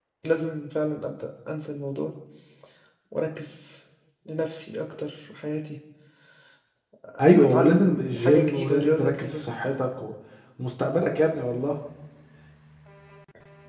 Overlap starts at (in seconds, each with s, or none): 7.4 s